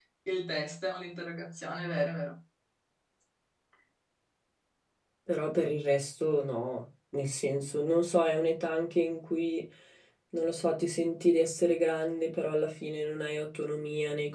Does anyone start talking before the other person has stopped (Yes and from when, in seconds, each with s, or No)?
No